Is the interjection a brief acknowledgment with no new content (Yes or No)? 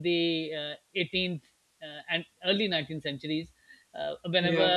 Yes